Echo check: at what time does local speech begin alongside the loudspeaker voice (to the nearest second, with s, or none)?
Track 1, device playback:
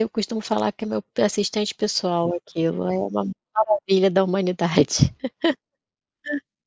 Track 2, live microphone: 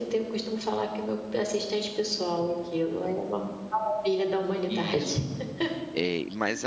5 s